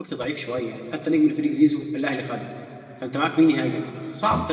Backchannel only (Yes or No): No